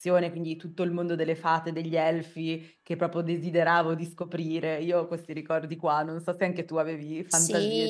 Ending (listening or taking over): taking over